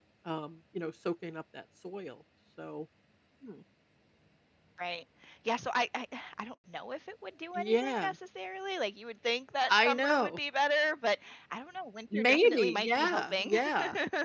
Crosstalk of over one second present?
Yes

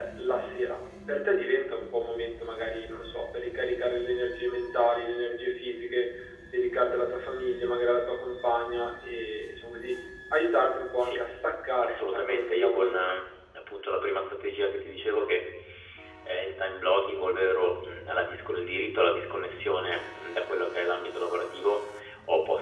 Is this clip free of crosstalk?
No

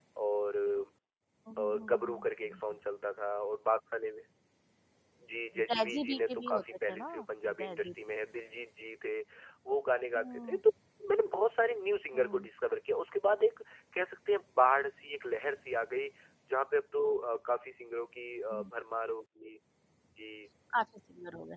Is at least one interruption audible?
Yes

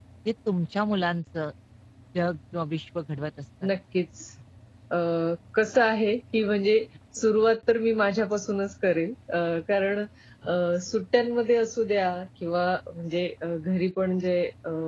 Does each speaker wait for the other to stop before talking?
Yes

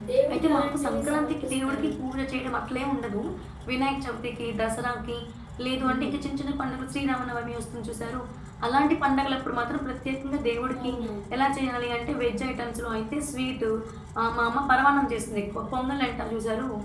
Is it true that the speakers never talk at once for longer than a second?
No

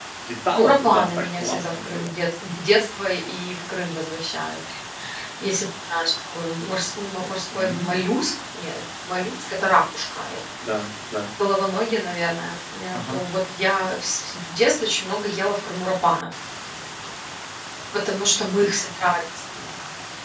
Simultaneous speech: Yes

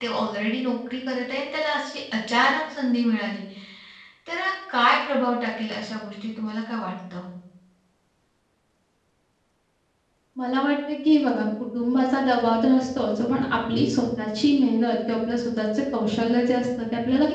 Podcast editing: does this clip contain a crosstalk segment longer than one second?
No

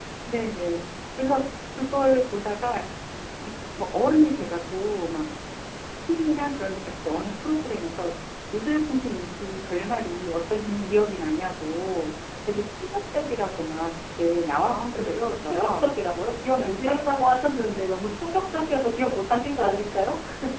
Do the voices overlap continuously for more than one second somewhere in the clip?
Yes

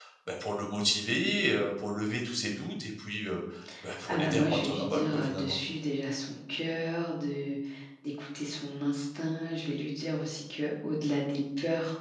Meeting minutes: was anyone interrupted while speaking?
Yes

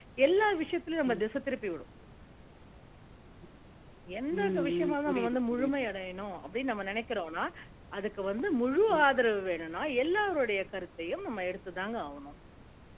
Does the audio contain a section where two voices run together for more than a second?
Yes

